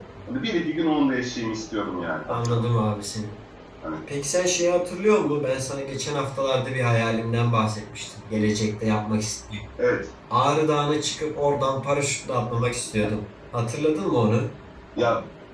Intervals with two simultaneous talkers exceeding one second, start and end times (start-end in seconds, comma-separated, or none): none